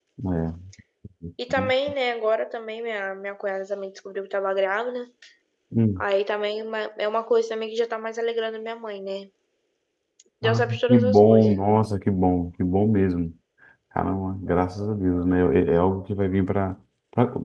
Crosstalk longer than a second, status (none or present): present